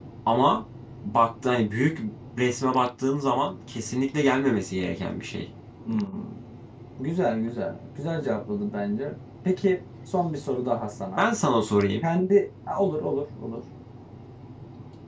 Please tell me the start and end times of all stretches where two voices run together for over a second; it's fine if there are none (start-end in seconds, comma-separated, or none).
none